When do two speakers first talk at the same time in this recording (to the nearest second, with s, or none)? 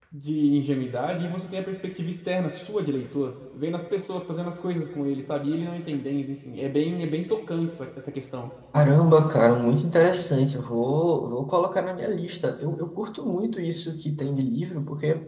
none